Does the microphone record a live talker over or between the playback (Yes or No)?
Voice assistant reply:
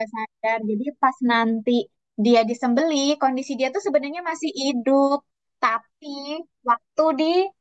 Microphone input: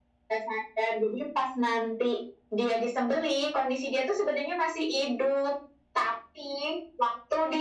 No